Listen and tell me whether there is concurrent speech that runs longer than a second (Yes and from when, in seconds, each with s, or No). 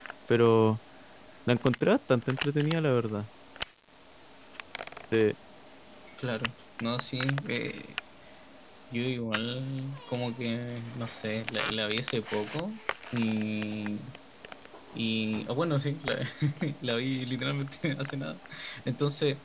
No